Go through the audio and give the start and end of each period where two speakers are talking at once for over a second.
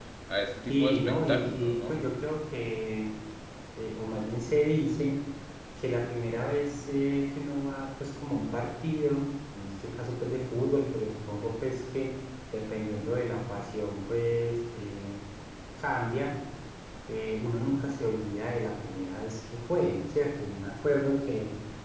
0.7-2.0

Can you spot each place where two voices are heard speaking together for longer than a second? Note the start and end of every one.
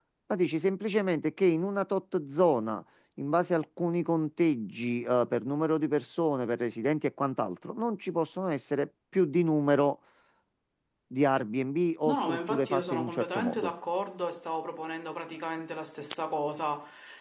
12.1-13.7

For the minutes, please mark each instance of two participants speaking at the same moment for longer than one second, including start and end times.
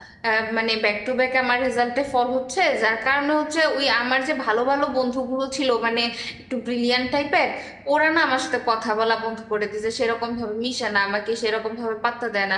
none

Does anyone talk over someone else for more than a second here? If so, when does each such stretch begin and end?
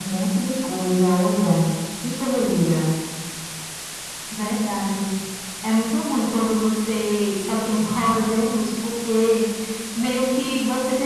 none

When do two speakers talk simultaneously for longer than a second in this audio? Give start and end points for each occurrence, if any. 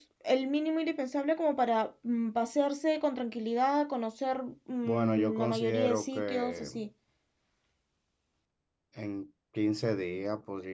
4.8-6.7

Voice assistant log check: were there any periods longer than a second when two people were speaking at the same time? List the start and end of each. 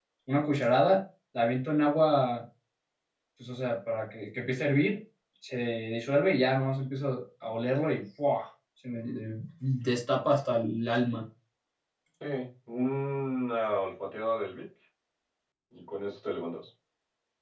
none

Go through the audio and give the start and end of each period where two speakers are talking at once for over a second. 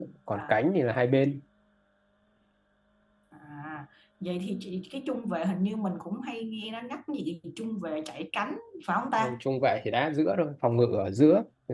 none

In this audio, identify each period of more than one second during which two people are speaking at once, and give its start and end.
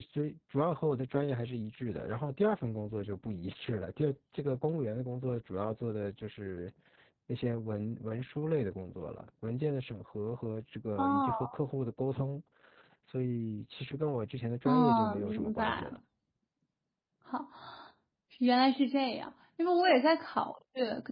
14.7-15.9

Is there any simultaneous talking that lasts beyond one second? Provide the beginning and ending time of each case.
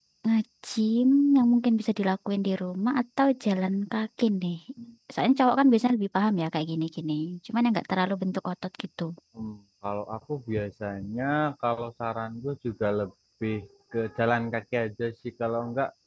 none

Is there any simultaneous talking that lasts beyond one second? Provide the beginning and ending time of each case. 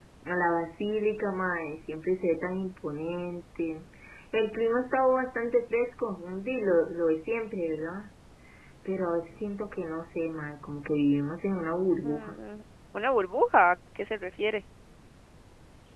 none

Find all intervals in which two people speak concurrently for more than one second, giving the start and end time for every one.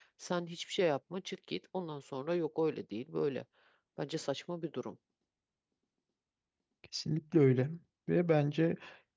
none

